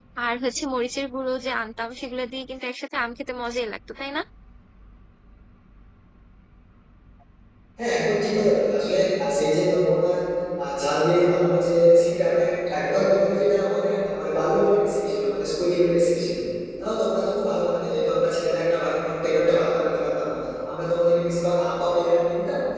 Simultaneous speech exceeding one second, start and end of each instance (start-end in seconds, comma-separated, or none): none